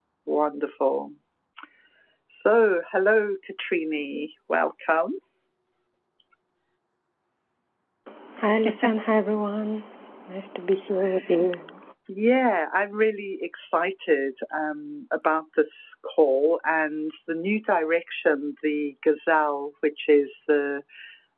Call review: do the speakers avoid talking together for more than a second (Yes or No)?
Yes